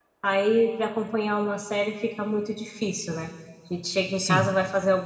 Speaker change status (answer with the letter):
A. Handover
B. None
B